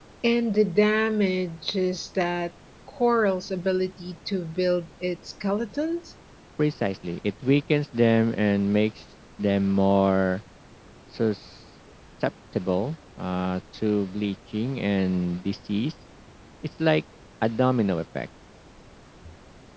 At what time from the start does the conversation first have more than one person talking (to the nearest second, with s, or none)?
none